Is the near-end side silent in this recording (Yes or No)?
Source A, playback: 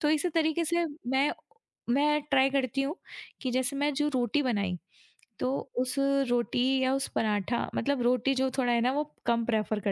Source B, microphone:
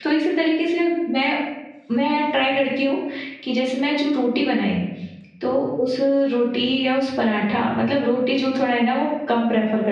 Yes